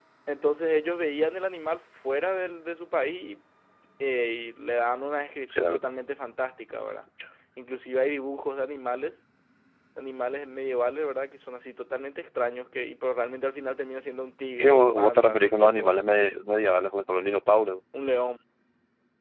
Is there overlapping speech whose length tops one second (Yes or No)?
Yes